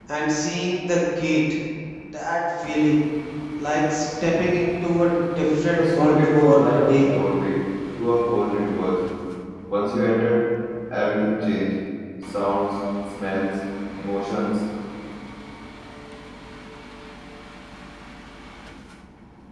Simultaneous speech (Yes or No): Yes